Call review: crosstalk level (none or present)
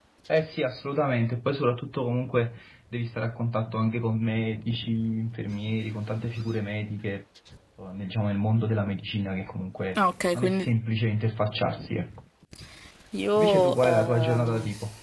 present